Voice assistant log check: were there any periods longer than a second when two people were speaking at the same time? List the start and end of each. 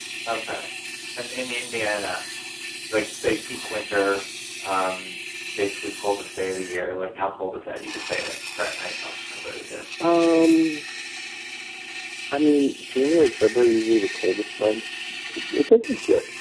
none

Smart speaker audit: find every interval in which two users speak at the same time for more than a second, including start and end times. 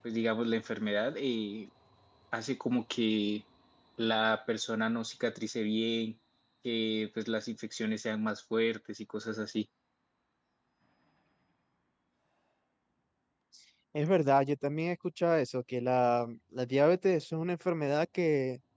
none

